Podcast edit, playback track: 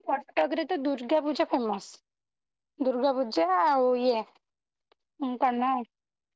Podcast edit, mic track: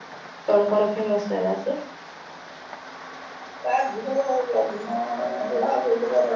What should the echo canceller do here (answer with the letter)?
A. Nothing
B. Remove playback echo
A